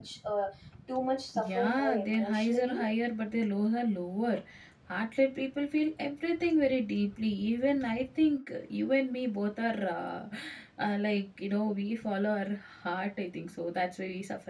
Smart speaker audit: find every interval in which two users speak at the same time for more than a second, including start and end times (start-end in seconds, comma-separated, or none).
1.3-2.8